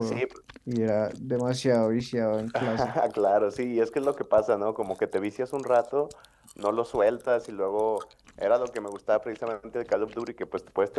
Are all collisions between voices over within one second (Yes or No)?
Yes